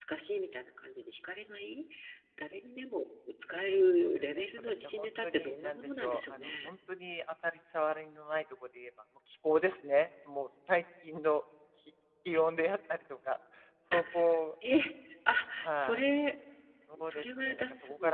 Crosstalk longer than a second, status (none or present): present